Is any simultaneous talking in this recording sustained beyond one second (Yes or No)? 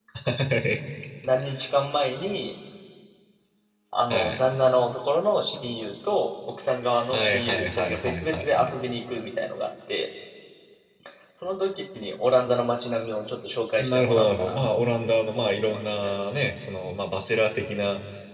Yes